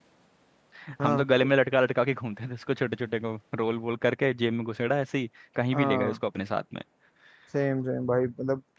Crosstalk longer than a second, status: none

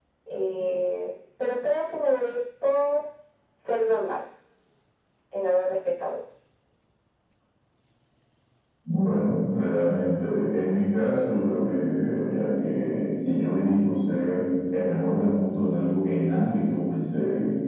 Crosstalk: none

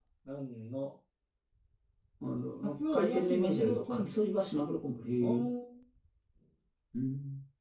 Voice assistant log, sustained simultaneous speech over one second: present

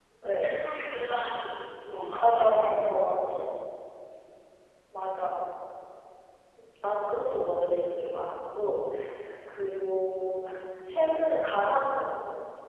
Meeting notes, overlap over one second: none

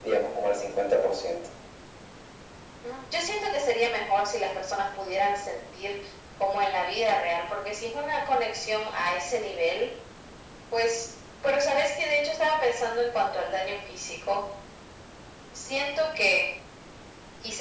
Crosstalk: none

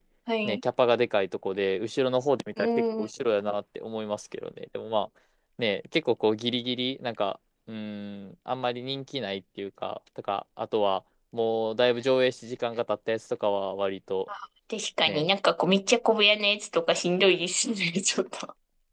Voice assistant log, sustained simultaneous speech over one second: none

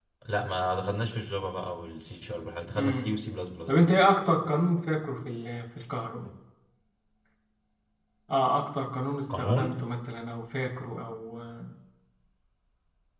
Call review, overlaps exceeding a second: none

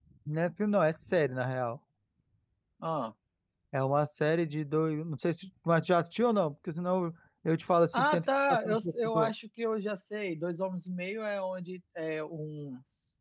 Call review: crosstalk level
present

